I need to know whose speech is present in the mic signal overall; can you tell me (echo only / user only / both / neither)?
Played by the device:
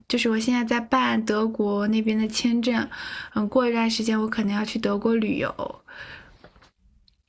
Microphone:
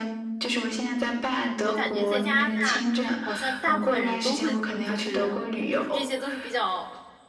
both